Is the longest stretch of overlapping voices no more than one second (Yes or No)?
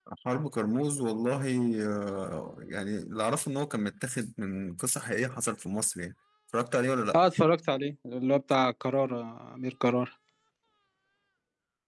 Yes